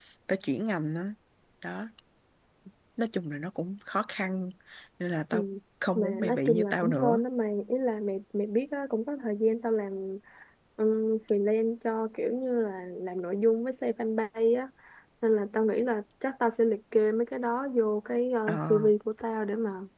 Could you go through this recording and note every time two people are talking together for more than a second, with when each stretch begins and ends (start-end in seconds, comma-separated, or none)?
6.0-7.2